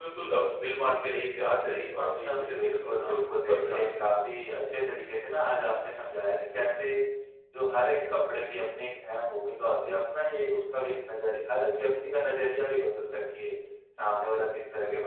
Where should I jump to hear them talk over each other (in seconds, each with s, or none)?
2.2 s